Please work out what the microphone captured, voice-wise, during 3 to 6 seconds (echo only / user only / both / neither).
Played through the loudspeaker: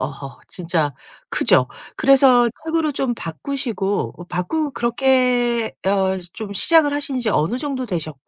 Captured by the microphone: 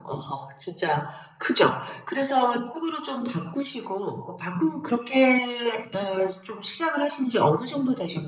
echo only